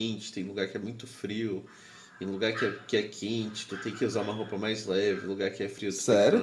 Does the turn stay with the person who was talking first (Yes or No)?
No